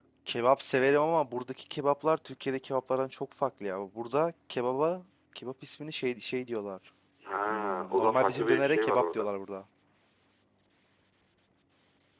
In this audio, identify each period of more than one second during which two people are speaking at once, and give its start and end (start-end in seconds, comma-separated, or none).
7.5-9.3